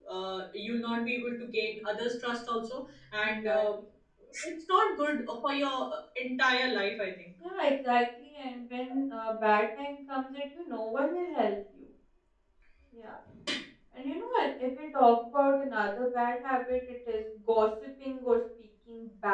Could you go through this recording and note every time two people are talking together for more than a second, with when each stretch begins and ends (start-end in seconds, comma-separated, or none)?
none